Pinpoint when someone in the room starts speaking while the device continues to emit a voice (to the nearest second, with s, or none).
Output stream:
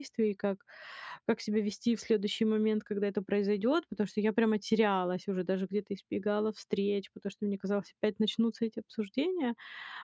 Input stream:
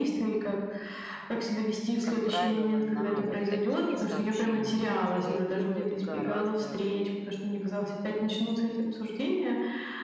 2 s